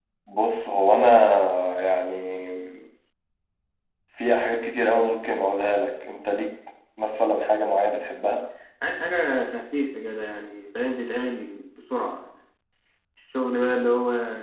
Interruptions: none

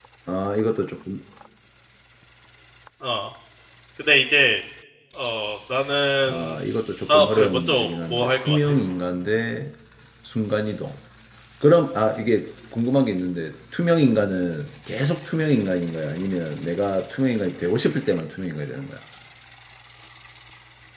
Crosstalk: present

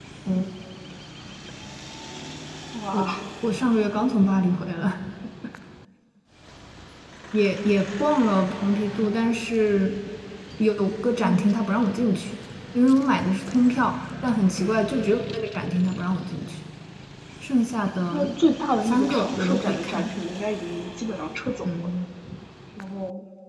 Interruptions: present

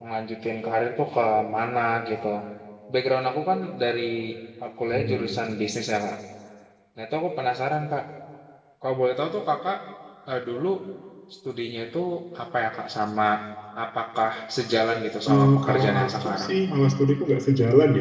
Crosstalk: present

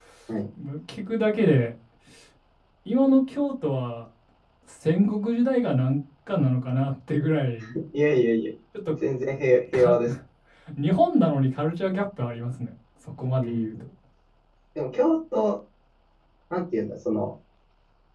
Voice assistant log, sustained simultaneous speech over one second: none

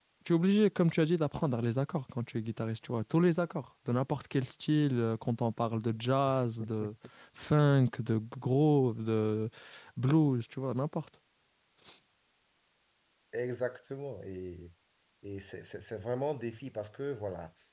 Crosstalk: none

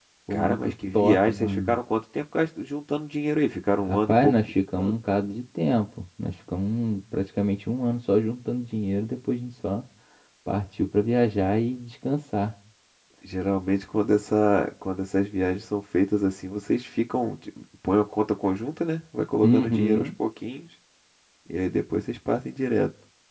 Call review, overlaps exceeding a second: present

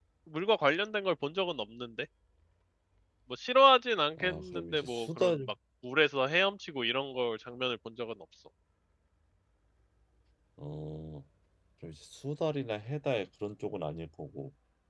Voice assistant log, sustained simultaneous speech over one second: present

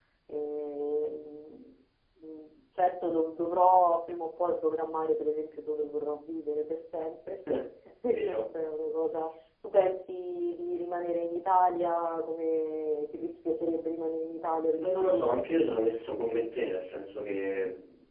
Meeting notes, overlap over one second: none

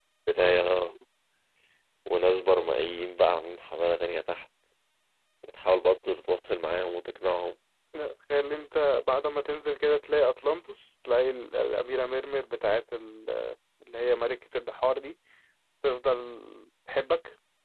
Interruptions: none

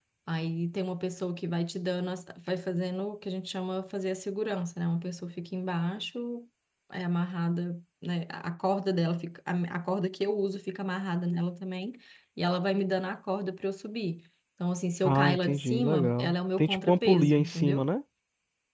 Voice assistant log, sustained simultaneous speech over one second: present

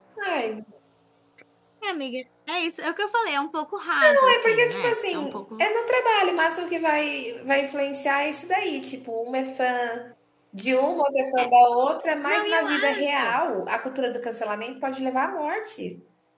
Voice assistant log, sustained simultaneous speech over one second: present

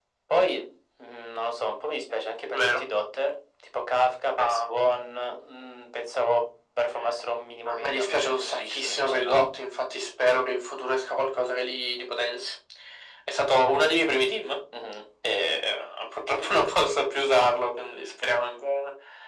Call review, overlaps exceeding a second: present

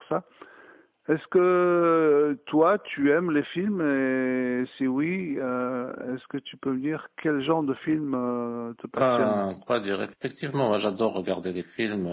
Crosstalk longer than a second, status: none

